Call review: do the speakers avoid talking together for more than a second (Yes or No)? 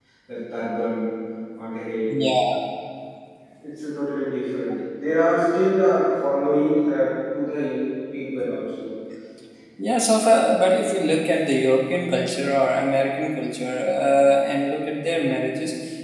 Yes